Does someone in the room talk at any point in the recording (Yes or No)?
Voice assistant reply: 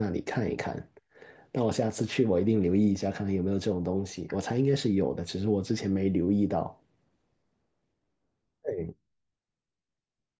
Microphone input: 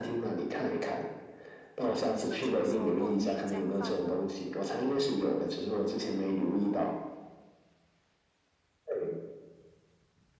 Yes